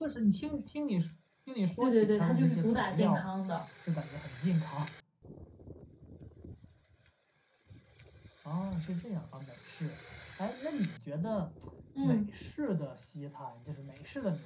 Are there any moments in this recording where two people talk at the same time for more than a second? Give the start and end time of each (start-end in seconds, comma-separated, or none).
1.8-3.2